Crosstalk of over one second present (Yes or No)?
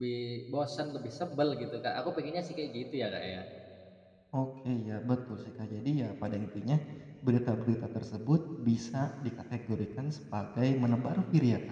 No